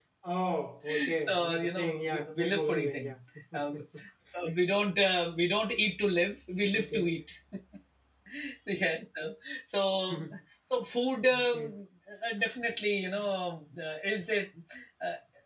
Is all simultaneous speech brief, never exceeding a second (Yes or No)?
No